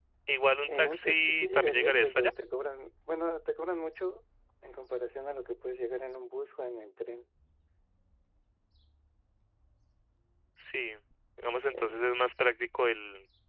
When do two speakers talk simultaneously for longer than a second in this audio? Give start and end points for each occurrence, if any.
0.7-2.3

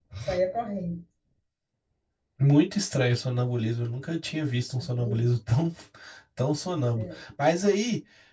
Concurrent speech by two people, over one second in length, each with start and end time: none

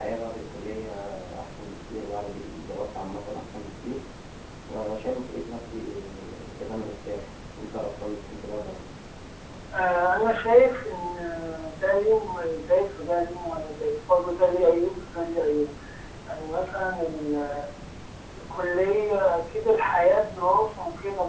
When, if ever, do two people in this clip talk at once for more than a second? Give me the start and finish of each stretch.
none

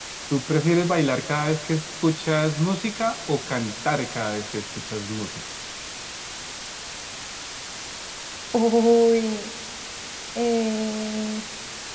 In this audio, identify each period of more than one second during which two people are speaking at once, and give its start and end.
none

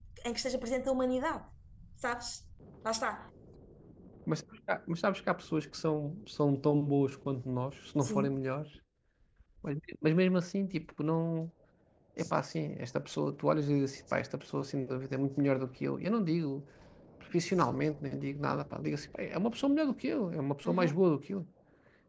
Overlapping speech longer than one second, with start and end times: none

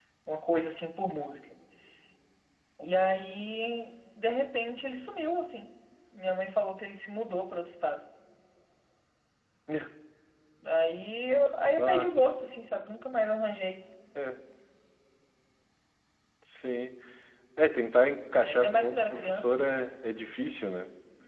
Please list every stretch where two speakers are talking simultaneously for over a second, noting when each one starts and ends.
18.4-19.6

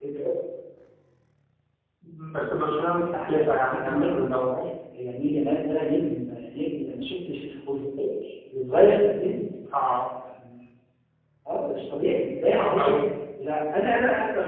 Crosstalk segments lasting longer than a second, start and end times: 3.3-4.5

